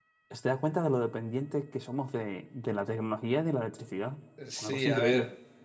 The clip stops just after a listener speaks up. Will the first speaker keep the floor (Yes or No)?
No